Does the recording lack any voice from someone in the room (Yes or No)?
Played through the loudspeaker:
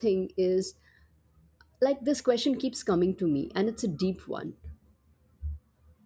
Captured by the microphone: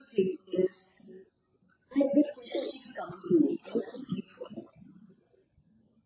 Yes